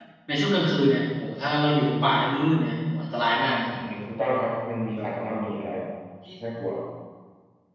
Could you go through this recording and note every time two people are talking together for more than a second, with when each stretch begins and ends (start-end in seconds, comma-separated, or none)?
none